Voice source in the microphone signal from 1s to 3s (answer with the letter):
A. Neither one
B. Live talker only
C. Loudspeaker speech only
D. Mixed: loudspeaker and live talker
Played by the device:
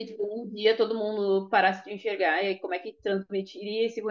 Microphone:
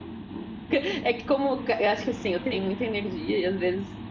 B